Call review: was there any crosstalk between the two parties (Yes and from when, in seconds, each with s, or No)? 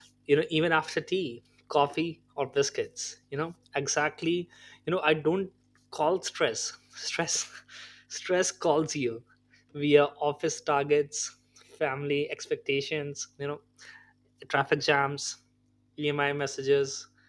No